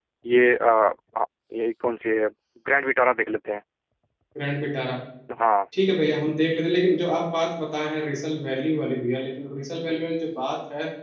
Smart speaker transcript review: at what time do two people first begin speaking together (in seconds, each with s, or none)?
none